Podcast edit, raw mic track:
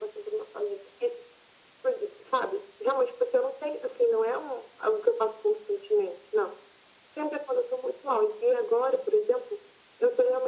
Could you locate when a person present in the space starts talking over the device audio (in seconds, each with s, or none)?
none